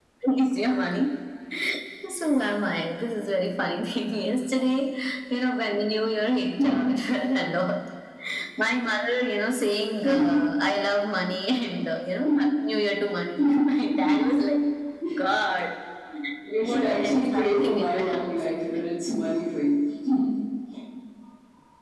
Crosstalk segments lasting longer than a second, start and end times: 16.6-18.4

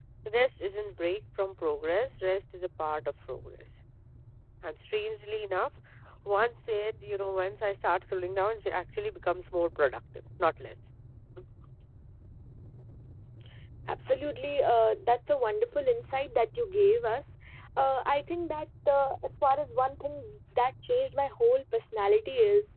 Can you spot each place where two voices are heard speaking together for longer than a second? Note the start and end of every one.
none

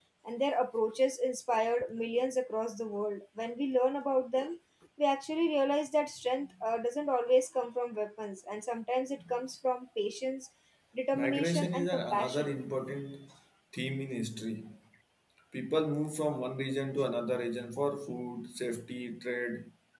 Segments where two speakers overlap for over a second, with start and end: 11.1-12.6

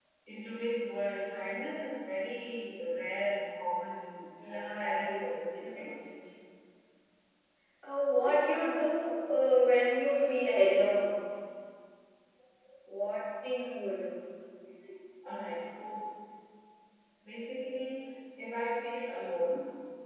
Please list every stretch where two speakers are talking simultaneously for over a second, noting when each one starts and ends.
4.6-6.0

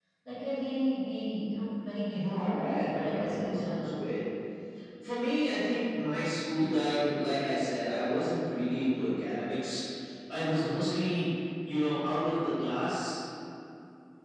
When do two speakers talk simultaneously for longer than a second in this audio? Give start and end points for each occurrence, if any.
2.1-4.0

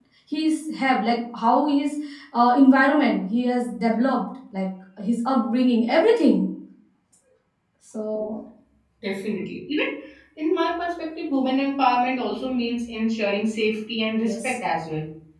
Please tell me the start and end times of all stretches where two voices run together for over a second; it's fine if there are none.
none

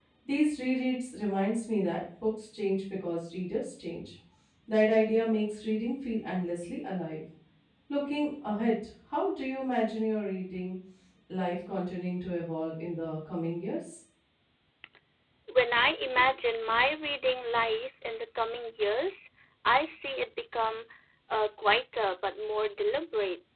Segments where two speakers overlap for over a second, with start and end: none

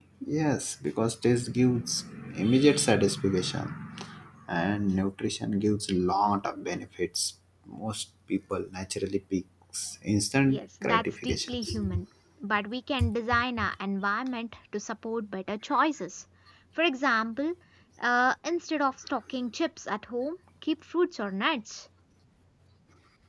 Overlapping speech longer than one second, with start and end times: 10.5-11.8

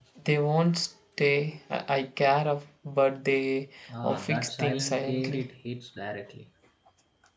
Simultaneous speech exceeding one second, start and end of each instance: 4.0-5.5

